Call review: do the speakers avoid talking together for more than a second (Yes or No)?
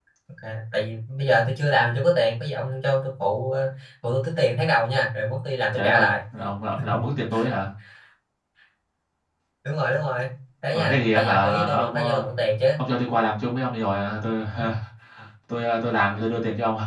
No